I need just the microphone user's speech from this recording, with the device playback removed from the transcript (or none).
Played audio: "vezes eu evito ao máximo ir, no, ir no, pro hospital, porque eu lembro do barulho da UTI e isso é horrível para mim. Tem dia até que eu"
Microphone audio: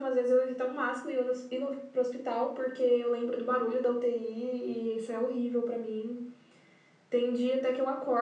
none